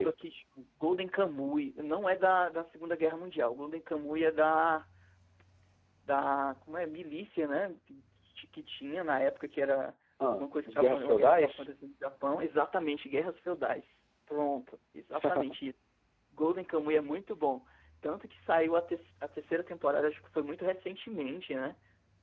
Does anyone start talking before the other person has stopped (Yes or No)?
Yes